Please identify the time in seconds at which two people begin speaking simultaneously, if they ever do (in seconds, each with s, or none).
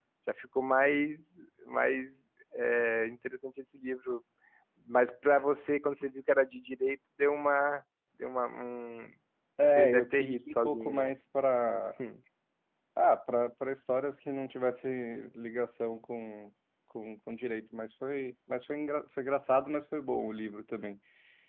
9.6 s